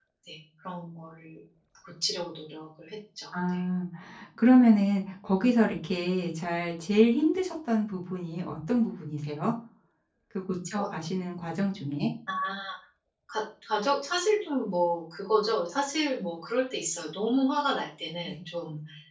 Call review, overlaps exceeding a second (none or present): none